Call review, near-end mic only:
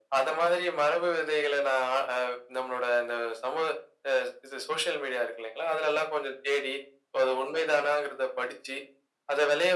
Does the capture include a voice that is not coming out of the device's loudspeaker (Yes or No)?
No